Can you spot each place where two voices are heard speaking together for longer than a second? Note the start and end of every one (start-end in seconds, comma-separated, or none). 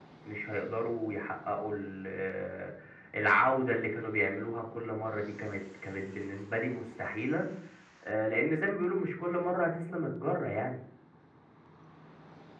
none